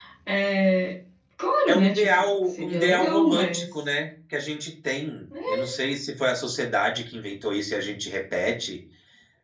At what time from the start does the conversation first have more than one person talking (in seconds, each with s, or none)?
1.7 s